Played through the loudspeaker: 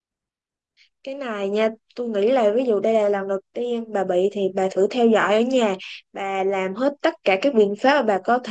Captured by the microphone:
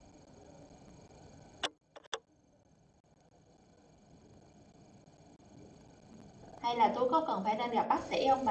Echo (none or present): none